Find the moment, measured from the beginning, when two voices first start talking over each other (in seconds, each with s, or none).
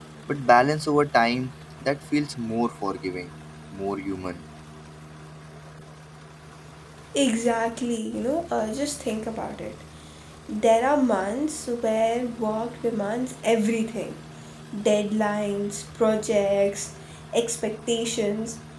none